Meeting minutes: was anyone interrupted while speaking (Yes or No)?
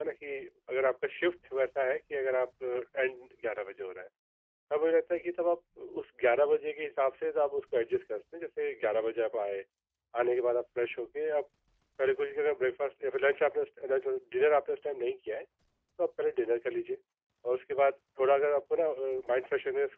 No